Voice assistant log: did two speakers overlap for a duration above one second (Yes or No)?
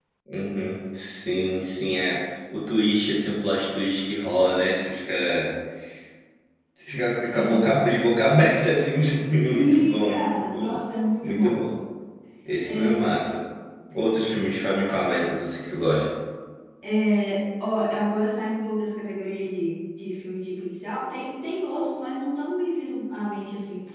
Yes